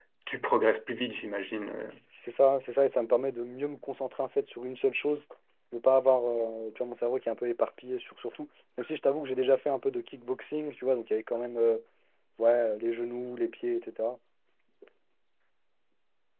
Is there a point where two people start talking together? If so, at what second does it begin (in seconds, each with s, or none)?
none